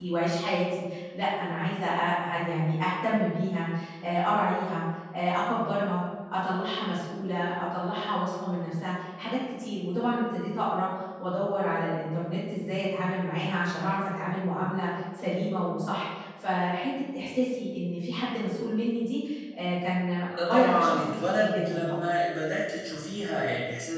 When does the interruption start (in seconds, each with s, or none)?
20.3 s